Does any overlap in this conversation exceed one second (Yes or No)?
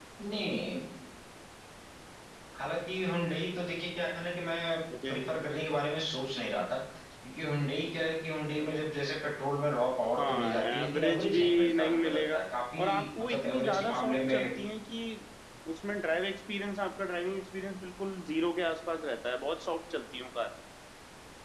Yes